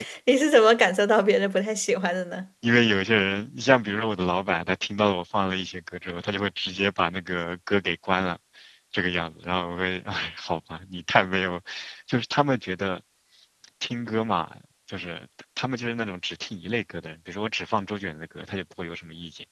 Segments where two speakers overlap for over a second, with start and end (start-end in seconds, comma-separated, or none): none